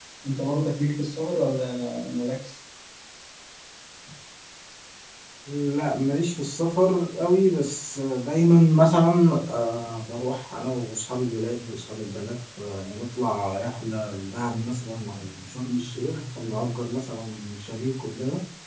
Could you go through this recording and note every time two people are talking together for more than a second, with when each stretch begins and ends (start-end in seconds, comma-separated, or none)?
none